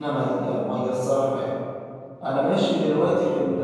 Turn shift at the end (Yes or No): No